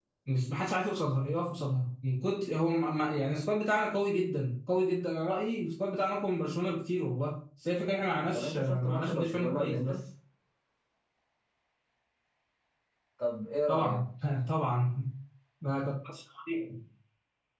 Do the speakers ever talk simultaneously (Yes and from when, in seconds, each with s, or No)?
Yes, from 8.3 s